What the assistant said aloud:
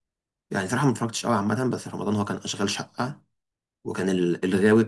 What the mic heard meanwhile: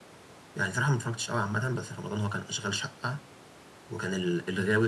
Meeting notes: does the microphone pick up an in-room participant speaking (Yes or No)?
No